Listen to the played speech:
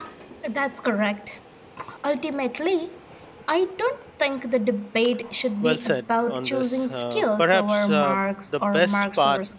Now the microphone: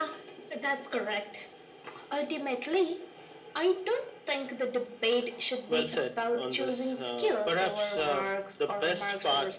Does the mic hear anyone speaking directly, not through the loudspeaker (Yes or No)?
No